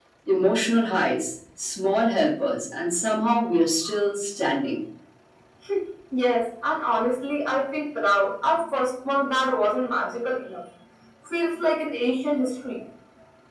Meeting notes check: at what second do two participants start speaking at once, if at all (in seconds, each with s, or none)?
none